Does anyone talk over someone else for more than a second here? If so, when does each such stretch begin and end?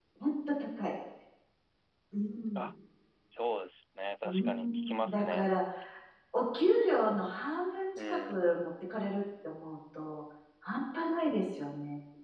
4.2-5.5

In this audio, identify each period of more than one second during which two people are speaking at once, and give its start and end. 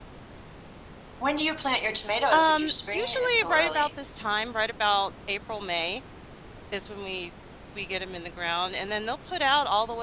2.3-3.9

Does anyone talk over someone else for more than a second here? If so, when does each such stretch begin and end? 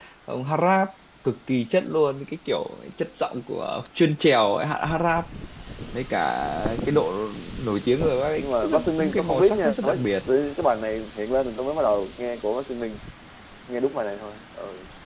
8.4-10.0

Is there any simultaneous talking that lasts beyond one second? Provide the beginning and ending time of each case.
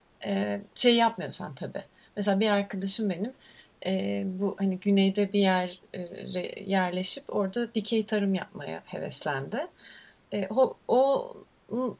none

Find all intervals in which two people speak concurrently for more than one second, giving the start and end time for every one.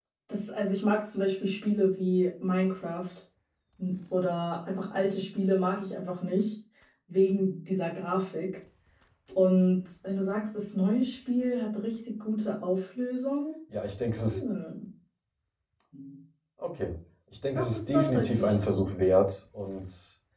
17.4-18.8

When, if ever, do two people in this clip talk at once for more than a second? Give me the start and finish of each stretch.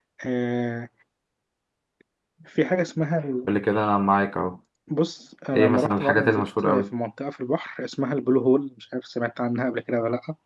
5.5-6.8

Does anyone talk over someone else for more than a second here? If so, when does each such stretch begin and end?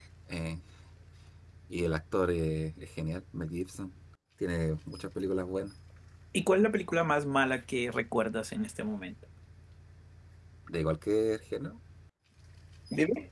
none

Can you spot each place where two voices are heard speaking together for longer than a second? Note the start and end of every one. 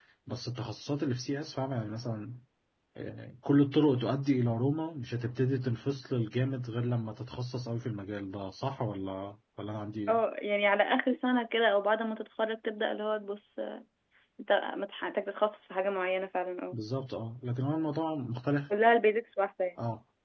none

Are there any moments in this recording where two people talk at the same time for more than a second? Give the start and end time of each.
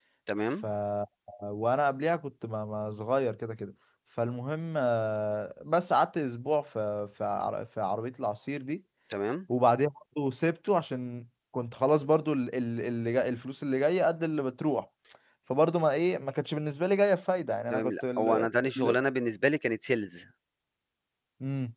17.7-19.0

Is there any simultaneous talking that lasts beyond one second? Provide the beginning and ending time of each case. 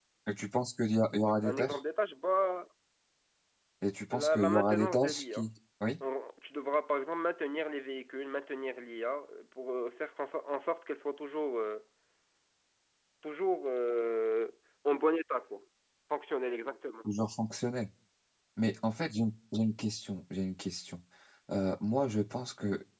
4.1-5.5

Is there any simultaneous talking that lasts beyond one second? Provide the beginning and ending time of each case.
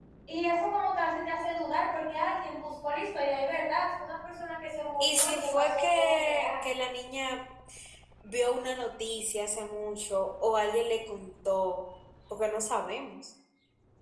5.0-6.5

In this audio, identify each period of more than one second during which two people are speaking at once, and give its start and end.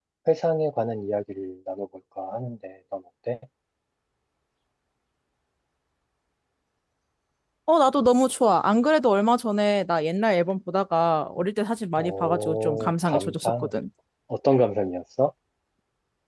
12.0-13.7

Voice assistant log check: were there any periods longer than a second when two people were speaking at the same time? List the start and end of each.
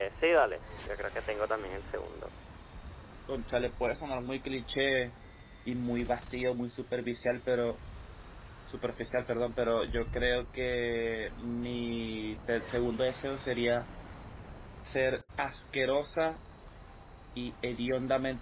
none

